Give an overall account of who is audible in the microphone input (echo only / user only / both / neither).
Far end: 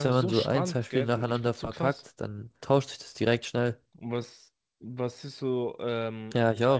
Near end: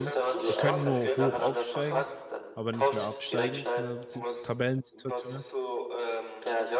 both